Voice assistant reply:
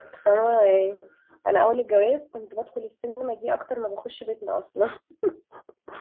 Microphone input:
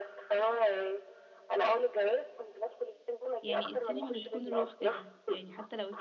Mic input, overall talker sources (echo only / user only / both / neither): both